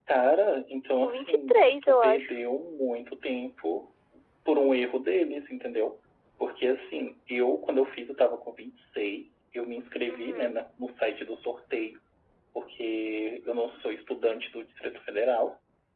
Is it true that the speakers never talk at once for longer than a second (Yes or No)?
No